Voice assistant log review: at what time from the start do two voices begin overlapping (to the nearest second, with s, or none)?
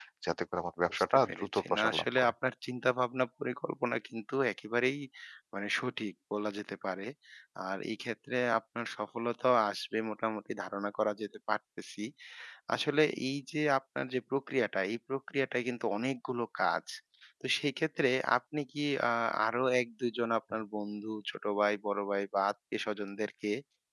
1 s